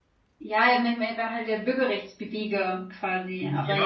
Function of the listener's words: taking over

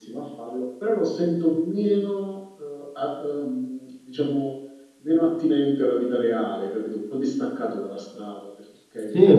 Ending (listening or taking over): taking over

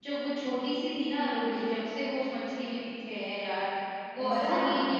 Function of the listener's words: listening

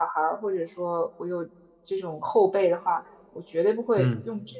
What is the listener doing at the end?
listening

